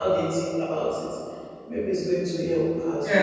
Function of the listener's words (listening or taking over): taking over